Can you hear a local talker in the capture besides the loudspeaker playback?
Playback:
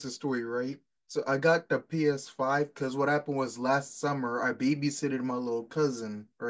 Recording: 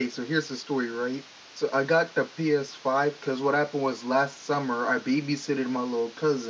No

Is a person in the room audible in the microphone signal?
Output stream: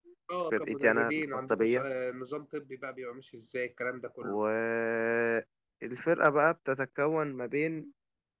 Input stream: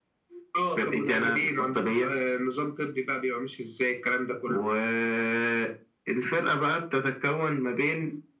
No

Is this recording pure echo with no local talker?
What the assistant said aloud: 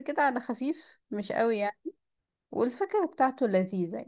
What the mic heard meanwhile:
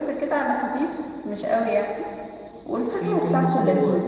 No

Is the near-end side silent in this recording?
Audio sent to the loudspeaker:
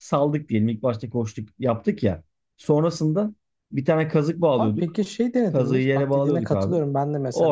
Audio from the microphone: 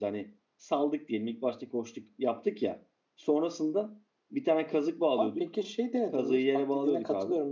Yes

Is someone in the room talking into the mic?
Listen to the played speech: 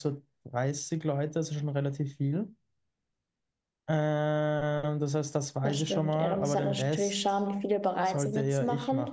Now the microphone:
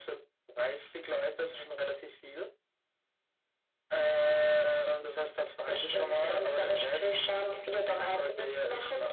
No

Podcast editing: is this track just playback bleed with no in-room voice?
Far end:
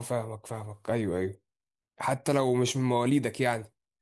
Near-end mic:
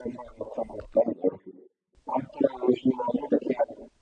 Yes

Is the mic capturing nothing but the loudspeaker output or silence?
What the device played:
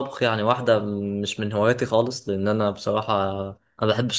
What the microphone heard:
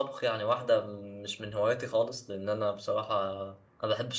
Yes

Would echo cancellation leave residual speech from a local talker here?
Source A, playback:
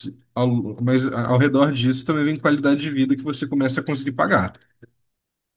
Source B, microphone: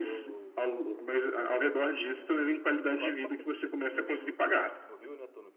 Yes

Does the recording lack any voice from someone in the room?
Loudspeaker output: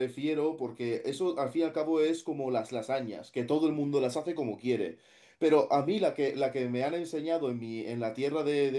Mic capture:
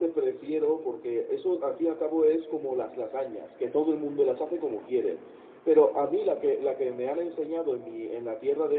Yes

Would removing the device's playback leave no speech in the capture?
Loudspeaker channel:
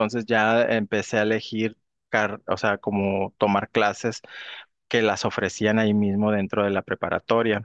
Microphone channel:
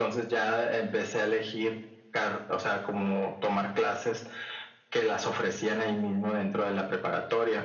Yes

